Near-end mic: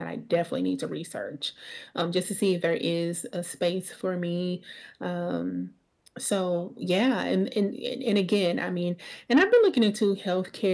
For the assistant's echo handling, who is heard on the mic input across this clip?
echo only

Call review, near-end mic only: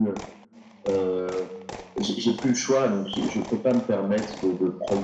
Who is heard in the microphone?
echo only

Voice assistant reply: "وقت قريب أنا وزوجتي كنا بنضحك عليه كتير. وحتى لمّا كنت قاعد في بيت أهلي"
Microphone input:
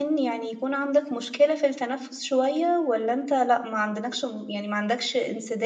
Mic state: user only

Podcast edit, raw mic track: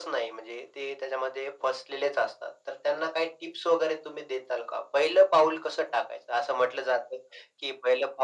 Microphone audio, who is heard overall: echo only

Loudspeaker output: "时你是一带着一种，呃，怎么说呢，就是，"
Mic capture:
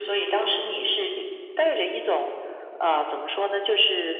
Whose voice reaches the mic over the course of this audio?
echo only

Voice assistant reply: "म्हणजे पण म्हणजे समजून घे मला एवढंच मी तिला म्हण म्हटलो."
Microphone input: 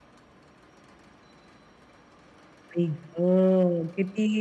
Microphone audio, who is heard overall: user only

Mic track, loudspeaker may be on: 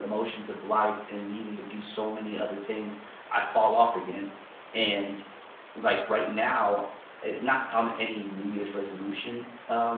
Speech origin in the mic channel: echo only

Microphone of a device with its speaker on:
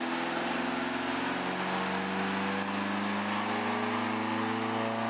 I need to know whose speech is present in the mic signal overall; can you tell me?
neither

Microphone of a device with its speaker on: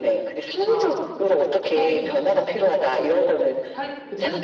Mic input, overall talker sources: both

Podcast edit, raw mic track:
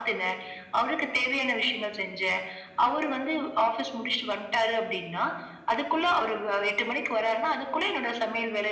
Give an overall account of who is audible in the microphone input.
echo only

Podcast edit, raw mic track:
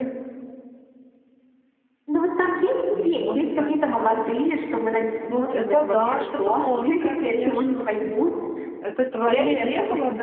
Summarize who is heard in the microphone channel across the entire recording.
both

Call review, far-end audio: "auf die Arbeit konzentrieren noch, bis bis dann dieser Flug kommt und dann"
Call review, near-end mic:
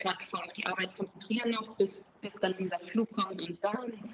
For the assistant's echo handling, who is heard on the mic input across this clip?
echo only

